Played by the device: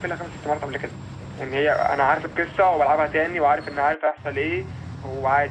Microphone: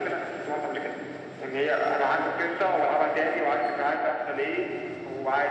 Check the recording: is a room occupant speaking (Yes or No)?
No